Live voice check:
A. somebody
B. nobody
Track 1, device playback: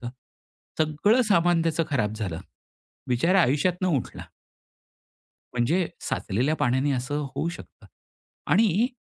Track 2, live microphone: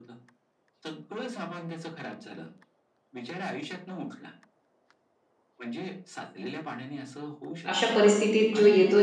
A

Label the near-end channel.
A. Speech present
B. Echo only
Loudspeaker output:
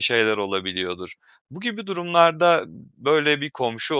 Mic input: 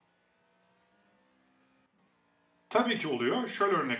A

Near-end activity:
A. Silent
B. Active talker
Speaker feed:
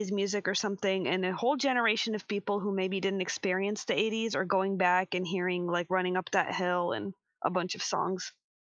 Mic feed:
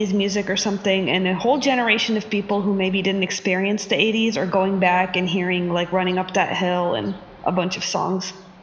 A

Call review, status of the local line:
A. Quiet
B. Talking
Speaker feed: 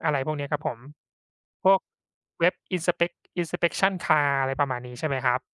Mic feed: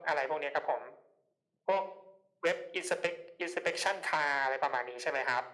A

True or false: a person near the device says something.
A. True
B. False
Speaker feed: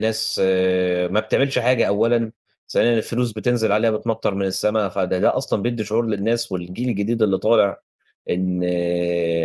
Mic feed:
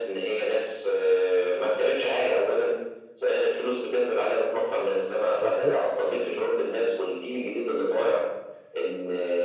A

